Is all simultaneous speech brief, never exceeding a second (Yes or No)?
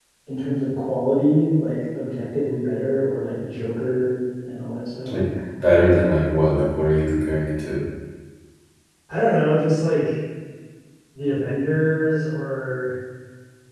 Yes